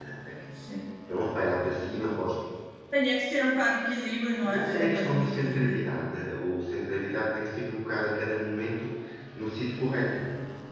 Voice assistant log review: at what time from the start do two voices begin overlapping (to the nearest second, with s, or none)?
4 s